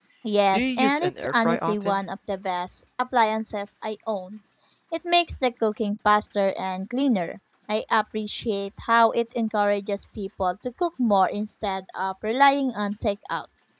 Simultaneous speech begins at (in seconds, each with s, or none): 0.5 s